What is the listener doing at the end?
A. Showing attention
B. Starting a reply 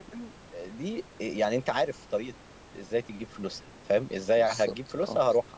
A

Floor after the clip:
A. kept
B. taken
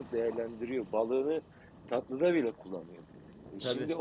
A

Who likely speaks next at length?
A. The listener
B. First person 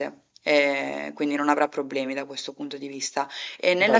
B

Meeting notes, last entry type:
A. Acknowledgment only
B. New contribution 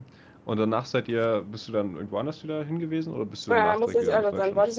B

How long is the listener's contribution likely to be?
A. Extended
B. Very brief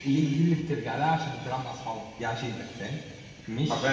A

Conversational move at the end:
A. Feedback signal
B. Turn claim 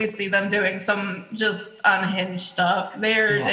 B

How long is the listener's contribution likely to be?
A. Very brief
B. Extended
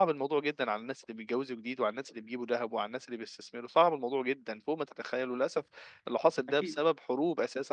A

